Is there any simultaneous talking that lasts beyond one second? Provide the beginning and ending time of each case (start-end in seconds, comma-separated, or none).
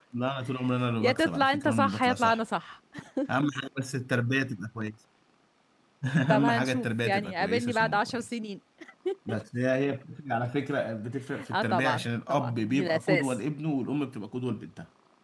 1.0-2.4, 6.3-8.2, 11.5-13.4